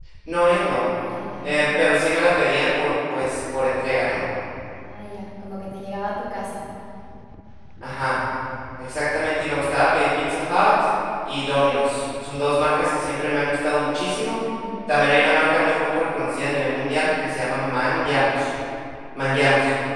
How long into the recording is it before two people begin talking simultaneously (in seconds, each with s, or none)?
none